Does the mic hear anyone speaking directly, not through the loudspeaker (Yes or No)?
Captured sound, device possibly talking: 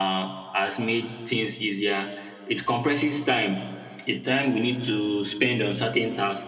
No